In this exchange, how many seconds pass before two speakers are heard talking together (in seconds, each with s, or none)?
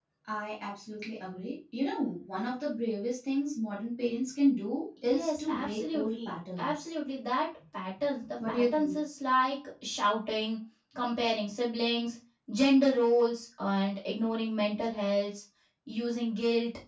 5.0 s